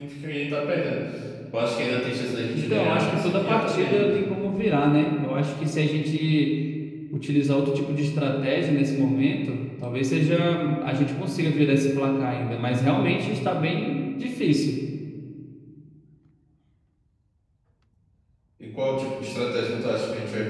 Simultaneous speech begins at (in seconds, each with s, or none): 2.5 s